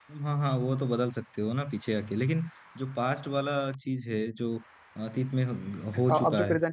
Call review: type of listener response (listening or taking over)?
taking over